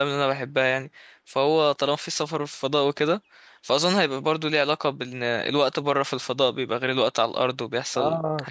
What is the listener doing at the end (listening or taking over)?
taking over